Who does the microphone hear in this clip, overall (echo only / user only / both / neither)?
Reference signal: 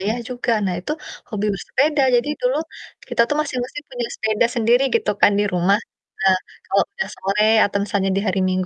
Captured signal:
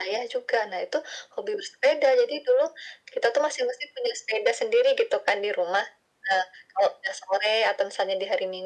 echo only